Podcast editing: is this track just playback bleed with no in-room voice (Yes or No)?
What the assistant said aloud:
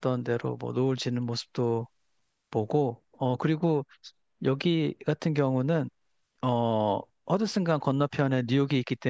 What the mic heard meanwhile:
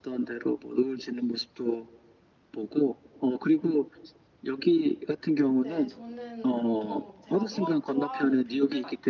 No